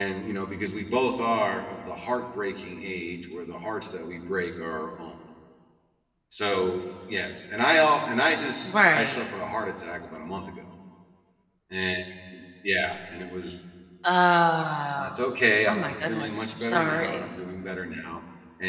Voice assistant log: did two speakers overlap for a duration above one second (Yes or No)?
Yes